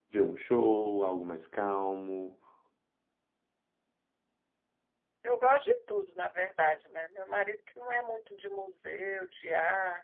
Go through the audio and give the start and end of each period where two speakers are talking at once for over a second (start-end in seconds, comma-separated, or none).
none